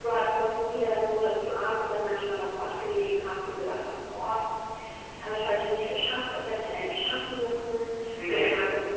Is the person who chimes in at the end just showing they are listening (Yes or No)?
Yes